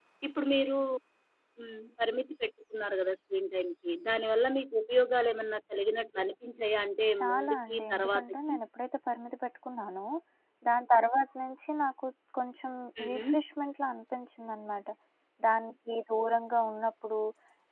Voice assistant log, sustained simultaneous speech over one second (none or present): present